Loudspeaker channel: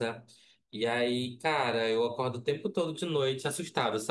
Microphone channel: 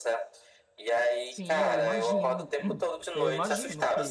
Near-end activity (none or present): present